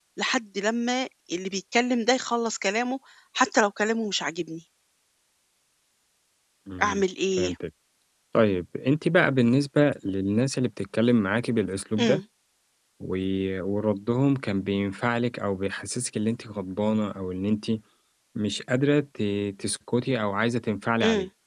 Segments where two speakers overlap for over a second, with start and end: none

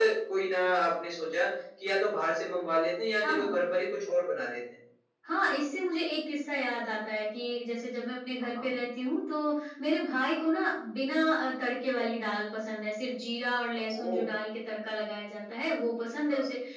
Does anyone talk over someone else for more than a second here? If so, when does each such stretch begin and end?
none

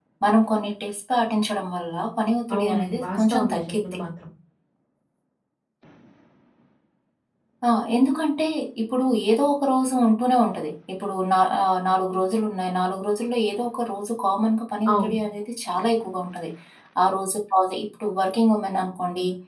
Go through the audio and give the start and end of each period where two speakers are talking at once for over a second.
2.5-3.9

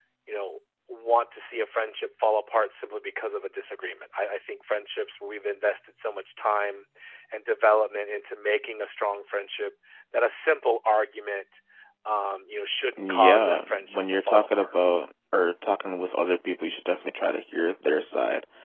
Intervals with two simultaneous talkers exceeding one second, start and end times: 13.0-14.7

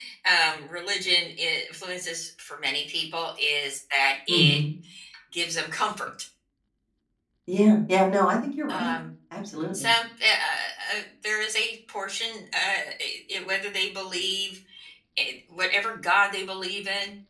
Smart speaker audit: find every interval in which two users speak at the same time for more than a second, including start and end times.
none

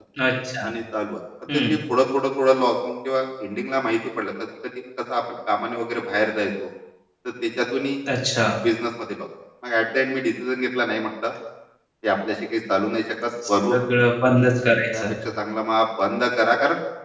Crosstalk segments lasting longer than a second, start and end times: none

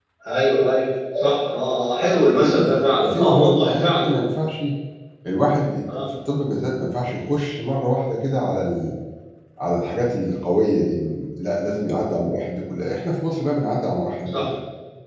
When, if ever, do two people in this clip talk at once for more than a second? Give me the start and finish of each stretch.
2.3-4.0

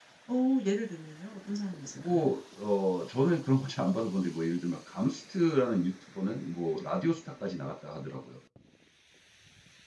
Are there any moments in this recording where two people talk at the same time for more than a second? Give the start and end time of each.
none

